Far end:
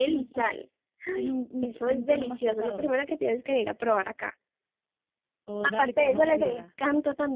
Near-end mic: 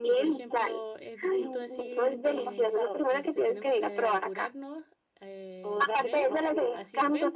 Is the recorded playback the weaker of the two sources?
No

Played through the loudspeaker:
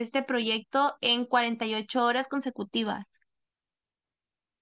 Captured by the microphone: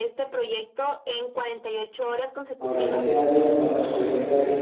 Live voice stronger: Yes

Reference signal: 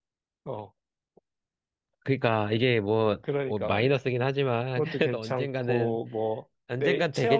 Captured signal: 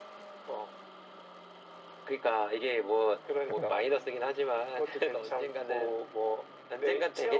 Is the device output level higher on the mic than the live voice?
Yes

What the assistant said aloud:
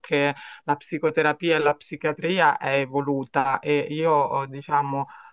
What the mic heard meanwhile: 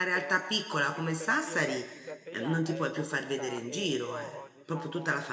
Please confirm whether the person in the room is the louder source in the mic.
Yes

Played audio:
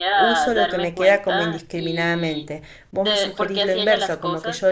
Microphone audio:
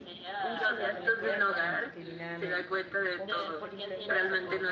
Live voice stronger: Yes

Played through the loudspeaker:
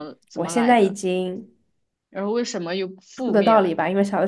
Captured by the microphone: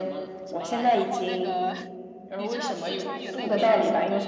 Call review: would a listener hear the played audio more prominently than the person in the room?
Yes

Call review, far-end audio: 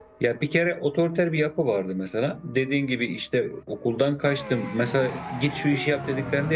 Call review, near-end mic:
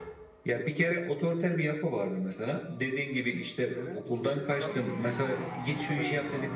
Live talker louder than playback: No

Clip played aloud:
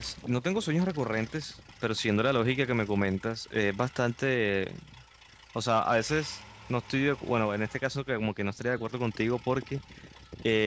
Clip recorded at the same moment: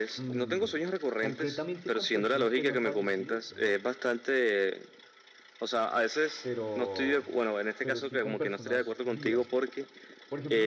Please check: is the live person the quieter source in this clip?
Yes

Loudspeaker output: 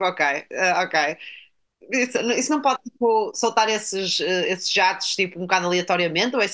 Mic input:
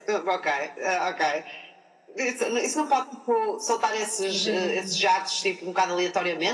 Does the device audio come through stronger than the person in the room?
Yes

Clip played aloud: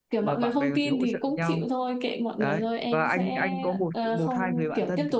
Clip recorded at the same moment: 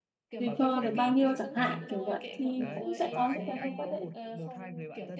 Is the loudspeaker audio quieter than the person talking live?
Yes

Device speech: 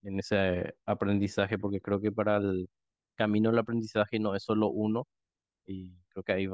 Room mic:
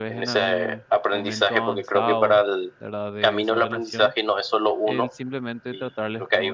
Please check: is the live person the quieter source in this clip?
Yes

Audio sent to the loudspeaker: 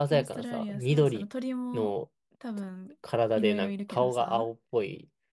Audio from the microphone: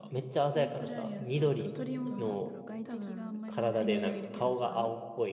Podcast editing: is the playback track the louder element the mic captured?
Yes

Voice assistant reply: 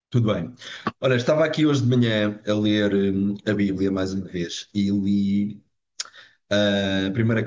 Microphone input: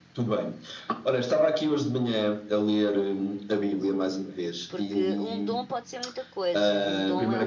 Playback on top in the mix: Yes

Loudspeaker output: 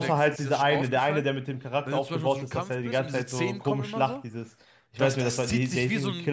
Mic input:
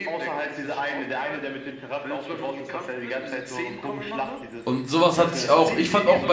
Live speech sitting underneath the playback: No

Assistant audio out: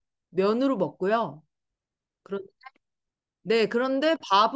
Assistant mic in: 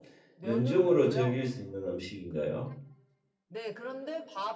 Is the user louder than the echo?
Yes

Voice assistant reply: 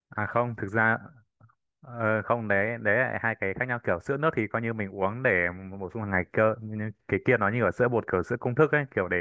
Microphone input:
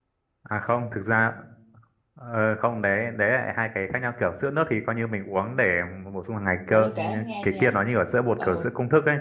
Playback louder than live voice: Yes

